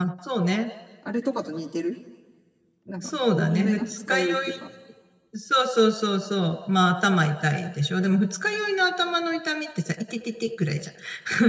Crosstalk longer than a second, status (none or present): present